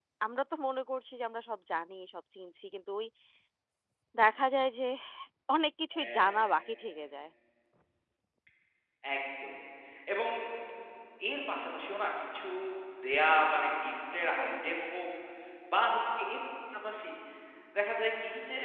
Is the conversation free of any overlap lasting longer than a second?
Yes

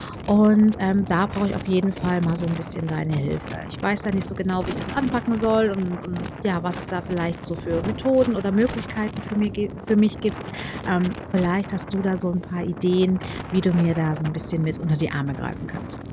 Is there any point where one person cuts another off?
No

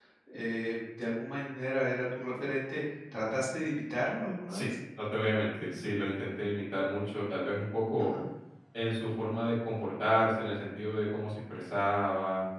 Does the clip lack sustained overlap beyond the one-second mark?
Yes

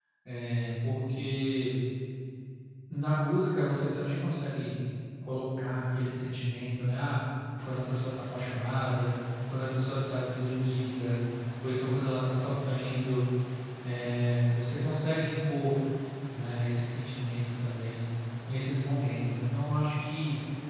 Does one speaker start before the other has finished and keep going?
No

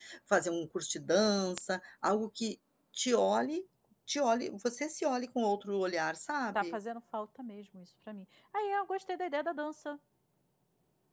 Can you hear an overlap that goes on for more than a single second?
No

